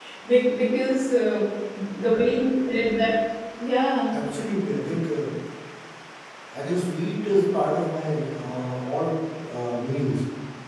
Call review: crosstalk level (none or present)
none